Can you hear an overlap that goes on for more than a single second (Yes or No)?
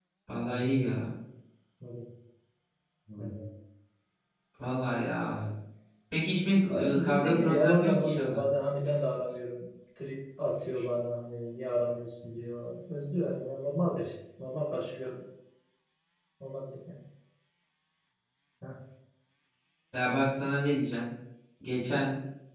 Yes